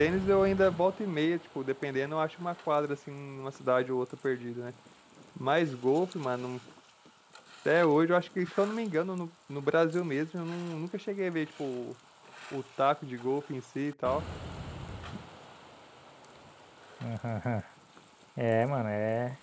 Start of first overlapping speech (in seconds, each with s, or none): none